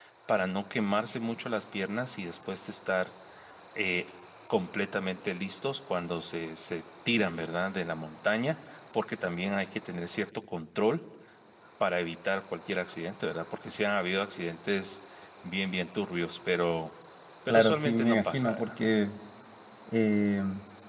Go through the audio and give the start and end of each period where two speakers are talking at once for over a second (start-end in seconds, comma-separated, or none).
17.5-18.7